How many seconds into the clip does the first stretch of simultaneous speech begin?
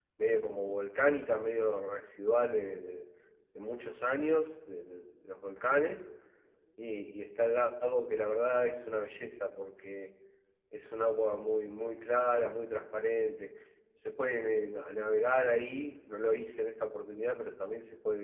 none

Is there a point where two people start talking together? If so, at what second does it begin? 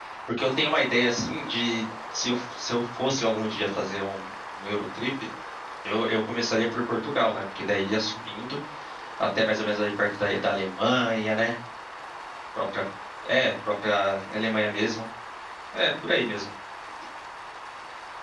none

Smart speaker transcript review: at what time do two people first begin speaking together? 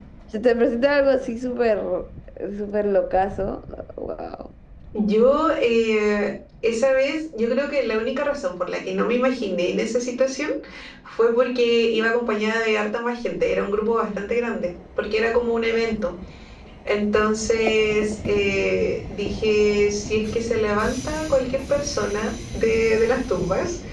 none

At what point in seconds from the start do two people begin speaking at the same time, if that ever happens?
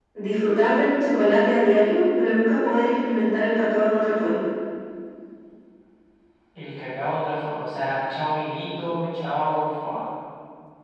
none

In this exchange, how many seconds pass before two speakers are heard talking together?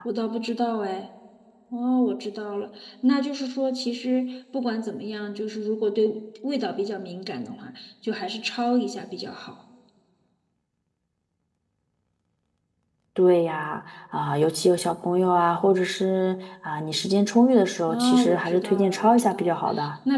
18 s

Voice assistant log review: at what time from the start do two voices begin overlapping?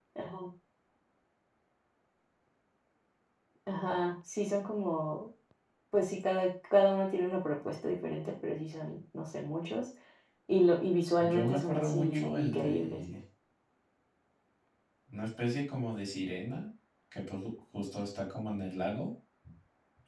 11 s

